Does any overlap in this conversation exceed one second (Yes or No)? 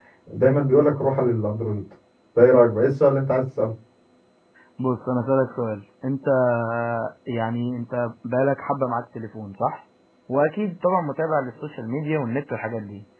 No